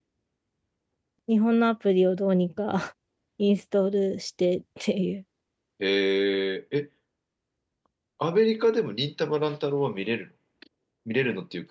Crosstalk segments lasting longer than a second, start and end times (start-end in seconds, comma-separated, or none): none